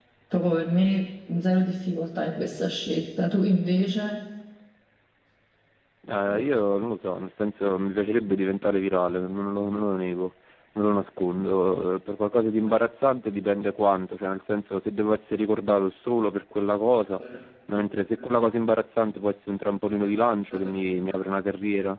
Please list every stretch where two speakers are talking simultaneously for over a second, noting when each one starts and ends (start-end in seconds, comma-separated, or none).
none